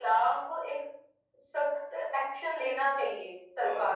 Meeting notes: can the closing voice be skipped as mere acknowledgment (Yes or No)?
No